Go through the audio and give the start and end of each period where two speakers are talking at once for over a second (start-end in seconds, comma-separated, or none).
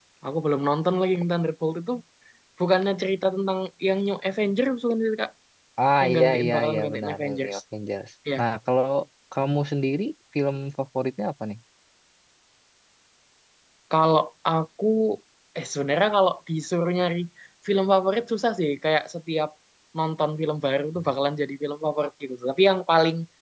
6.0-7.6